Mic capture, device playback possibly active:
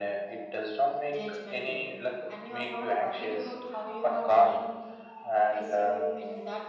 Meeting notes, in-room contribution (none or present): present